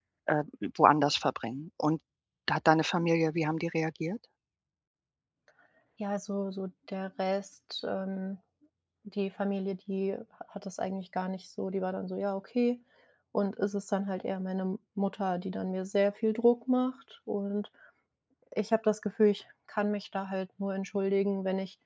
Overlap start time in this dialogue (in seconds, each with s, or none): none